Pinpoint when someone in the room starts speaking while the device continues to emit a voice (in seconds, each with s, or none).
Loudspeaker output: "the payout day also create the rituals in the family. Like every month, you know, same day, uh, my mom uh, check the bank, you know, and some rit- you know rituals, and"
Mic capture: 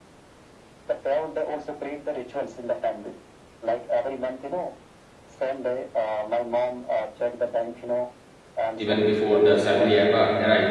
8.8 s